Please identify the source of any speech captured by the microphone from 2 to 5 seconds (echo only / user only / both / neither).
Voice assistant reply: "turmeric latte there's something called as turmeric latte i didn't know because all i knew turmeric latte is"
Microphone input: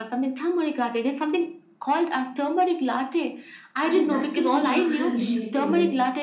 both